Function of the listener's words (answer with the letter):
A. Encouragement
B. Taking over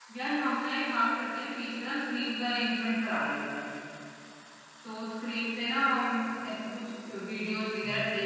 A